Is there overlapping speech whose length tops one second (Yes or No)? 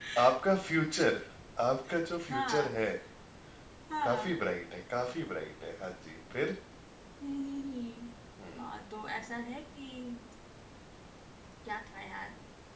No